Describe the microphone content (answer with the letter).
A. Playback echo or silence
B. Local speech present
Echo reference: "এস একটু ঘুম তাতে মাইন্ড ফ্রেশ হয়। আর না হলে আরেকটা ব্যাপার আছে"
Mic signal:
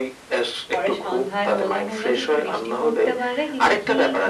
B